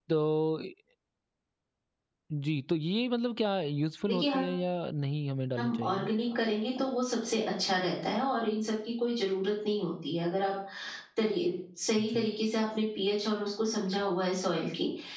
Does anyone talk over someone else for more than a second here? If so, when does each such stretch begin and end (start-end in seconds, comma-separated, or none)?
none